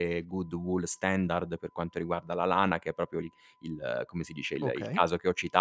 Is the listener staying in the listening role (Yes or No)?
Yes